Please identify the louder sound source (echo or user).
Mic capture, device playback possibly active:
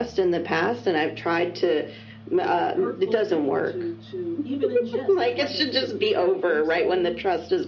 echo